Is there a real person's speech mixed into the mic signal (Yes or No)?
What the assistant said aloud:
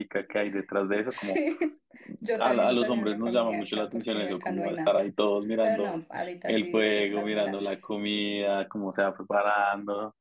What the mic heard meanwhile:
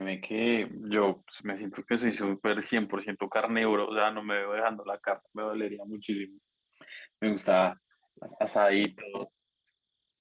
Yes